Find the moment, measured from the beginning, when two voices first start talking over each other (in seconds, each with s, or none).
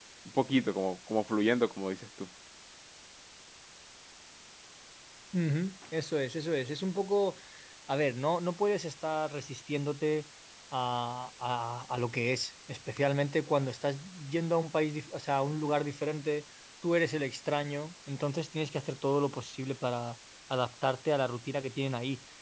none